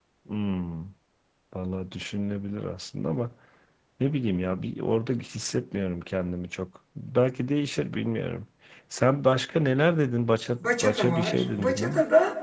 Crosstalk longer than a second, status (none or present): present